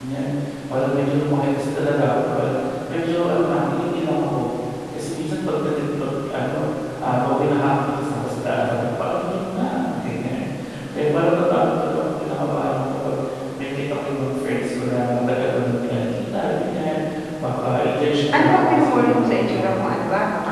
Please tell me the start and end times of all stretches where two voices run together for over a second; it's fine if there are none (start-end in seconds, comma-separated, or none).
18.4-20.0